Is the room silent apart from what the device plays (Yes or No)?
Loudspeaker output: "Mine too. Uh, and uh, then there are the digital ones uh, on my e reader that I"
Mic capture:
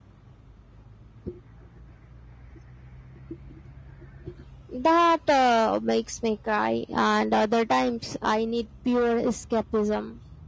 No